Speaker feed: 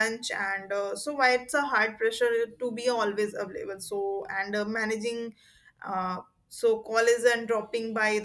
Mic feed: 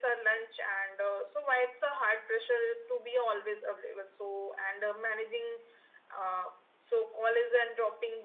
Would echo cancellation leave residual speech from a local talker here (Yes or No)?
No